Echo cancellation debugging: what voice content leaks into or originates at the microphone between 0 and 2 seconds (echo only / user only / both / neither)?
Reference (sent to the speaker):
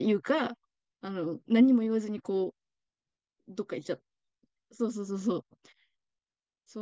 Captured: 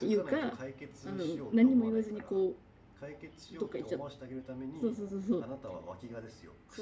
both